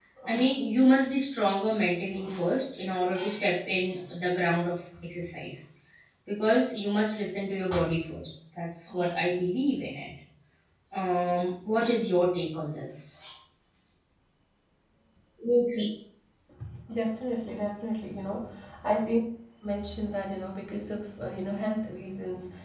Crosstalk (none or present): none